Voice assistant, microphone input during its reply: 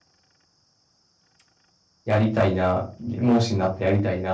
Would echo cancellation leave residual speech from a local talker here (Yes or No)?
Yes